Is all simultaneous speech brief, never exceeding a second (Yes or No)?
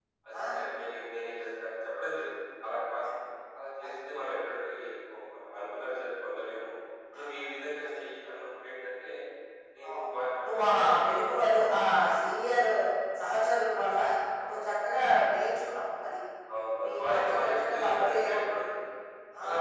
No